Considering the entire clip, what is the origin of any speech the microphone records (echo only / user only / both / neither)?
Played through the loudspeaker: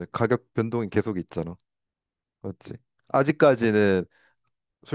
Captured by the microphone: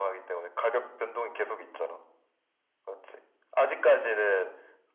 echo only